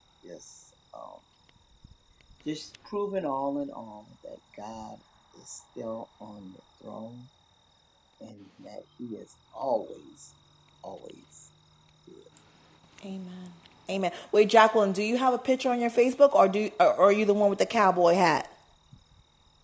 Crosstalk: none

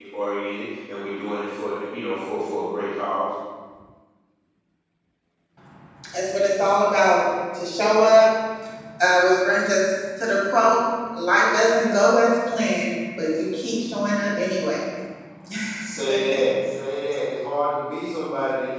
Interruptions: none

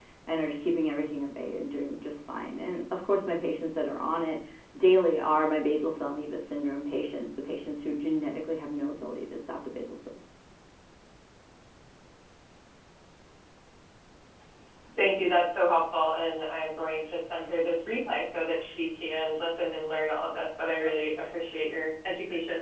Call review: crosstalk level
none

